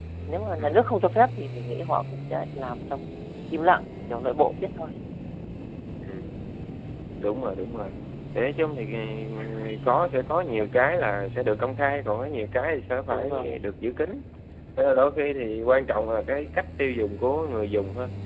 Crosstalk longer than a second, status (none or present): none